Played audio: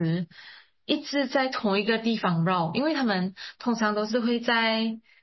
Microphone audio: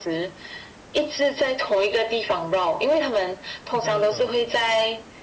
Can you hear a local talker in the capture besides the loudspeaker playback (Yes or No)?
Yes